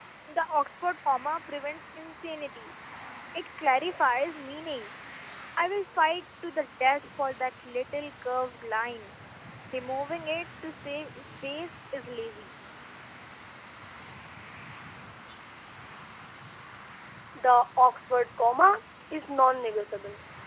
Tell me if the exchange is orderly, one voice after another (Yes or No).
Yes